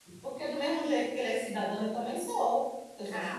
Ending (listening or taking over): taking over